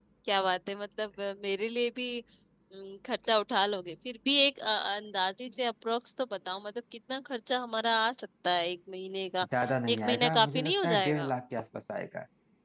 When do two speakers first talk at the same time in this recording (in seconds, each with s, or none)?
9.9 s